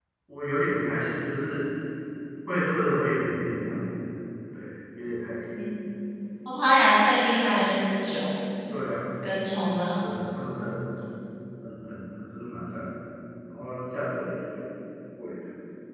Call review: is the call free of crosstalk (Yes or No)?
Yes